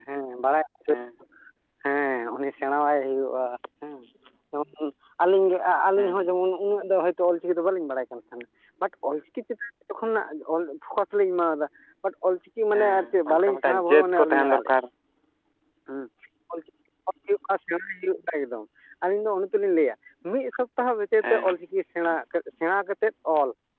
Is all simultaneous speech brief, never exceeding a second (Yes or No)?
No